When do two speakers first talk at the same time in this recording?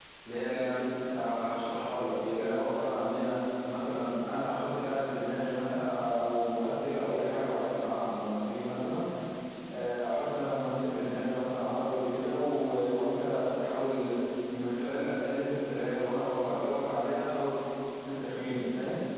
none

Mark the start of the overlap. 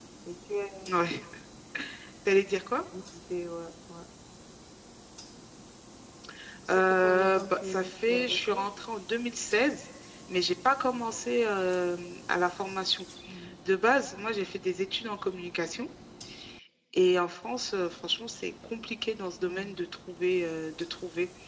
6.7 s

